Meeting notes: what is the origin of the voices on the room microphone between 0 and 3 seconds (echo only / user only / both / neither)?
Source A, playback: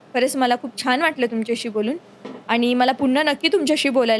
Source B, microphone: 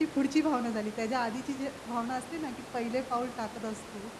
user only